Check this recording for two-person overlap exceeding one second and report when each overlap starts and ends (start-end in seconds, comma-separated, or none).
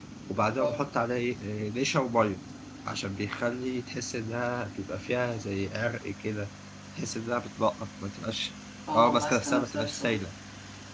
8.9-10.2